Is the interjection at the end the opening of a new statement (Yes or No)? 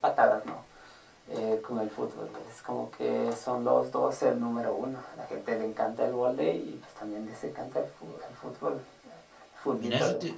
Yes